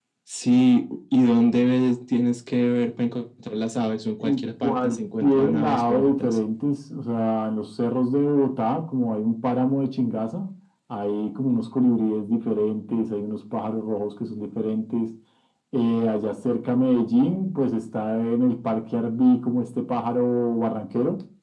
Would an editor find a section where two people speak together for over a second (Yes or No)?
Yes